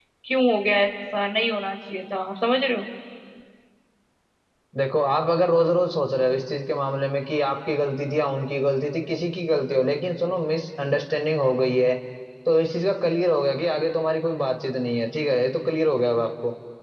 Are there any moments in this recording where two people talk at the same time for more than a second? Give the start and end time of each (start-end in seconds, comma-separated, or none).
none